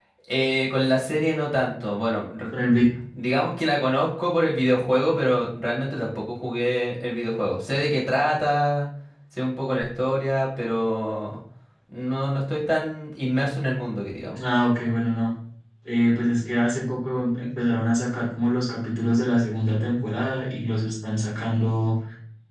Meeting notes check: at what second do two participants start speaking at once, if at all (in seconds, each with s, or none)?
none